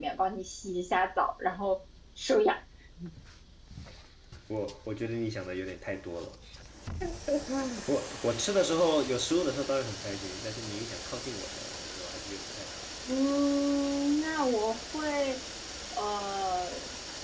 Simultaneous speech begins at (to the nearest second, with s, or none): none